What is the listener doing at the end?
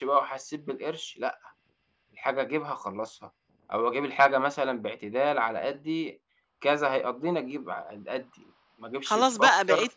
taking over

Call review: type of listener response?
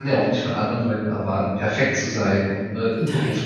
listening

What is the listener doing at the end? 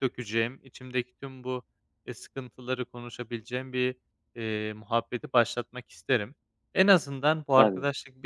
listening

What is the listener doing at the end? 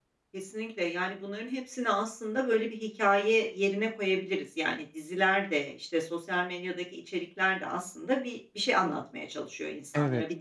listening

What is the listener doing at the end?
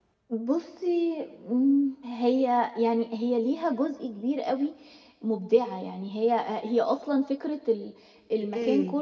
listening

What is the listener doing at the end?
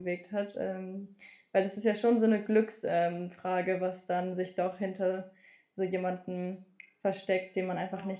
taking over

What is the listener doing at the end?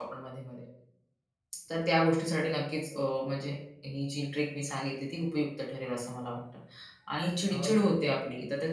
listening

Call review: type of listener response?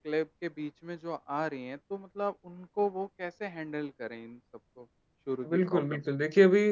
taking over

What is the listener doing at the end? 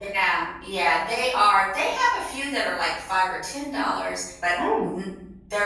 listening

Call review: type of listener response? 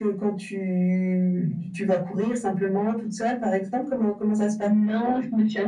taking over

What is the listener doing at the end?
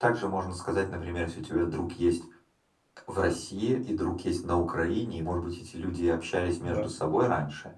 listening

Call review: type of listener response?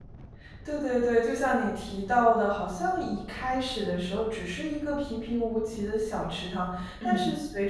listening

